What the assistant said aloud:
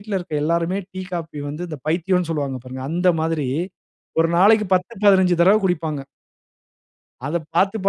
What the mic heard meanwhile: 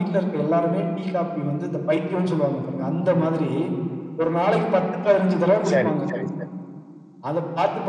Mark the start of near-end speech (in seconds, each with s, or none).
5.7 s